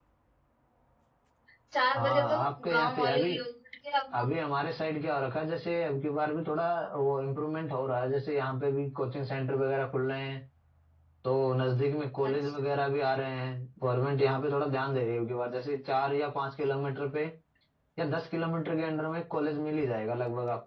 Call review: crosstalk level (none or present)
present